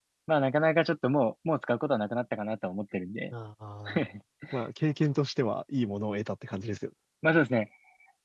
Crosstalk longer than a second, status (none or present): none